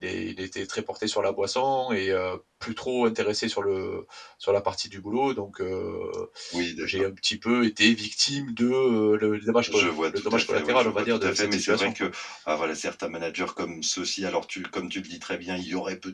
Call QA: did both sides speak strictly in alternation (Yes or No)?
No